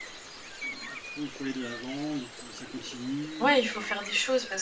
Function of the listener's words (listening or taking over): taking over